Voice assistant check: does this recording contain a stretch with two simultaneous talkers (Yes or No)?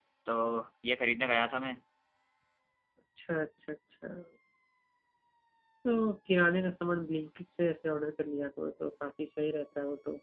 No